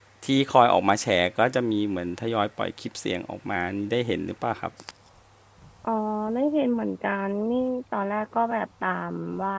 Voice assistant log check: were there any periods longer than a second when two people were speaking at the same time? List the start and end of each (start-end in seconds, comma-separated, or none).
none